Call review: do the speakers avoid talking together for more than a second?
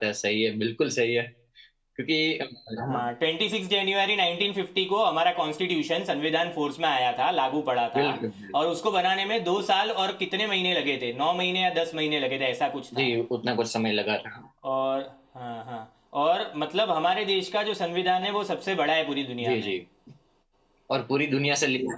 Yes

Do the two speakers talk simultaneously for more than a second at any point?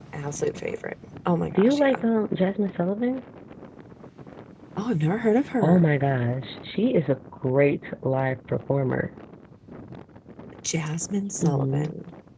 No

